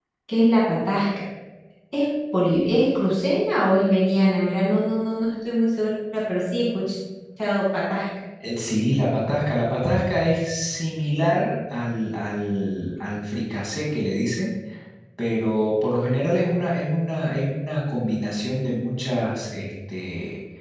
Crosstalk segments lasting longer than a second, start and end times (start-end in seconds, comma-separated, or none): none